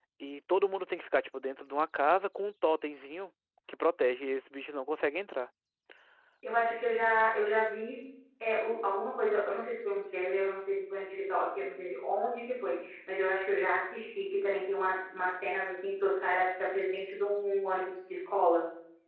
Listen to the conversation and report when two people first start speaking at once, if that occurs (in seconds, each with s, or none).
none